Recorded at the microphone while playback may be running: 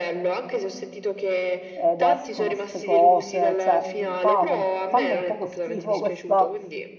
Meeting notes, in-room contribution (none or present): present